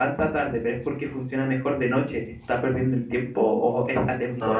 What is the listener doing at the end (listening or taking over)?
listening